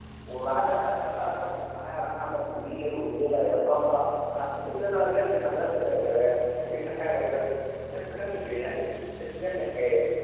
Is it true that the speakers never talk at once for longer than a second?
Yes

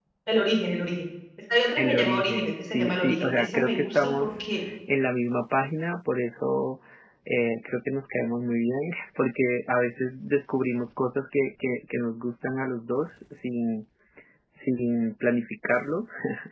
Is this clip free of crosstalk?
No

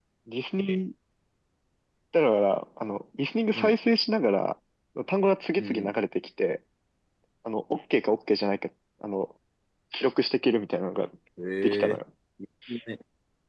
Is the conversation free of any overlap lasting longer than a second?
Yes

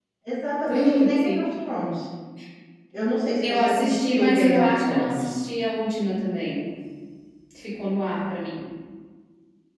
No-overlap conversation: No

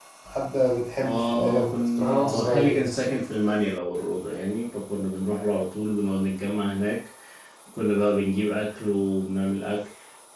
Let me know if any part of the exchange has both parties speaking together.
Yes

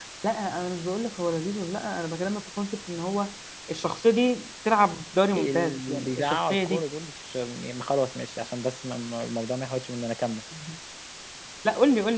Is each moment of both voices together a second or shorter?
No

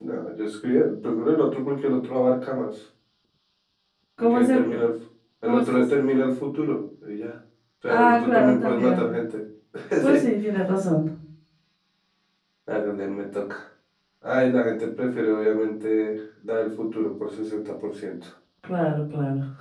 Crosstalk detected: Yes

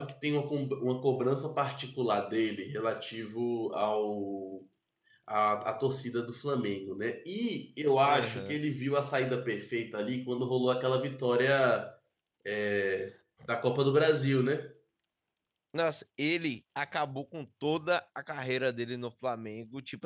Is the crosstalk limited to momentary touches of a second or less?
Yes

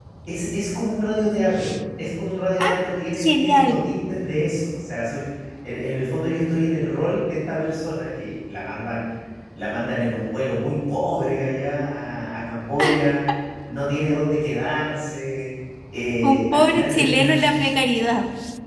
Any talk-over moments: Yes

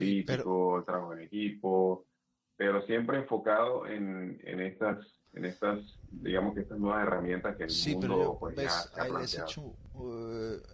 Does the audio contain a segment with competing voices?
Yes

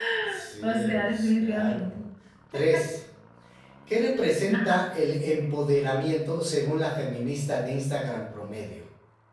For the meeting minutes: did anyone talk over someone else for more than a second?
Yes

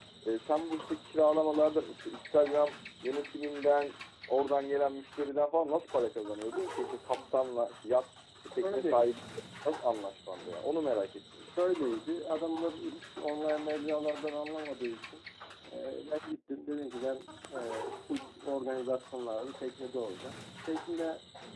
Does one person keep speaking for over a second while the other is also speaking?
No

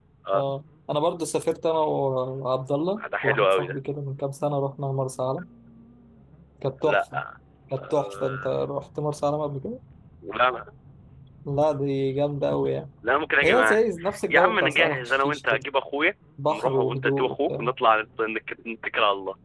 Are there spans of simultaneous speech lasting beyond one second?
Yes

